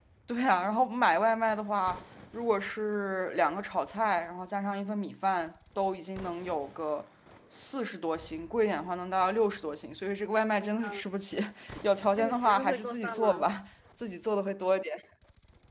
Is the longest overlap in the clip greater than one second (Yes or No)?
Yes